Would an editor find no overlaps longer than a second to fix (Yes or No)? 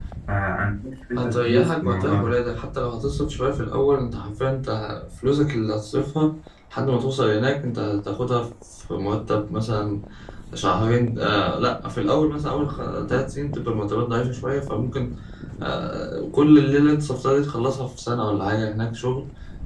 No